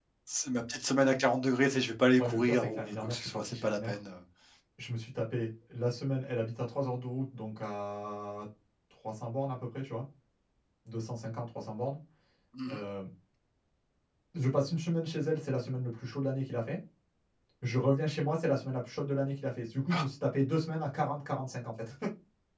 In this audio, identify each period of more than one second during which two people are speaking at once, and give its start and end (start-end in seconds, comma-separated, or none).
2.2-4.0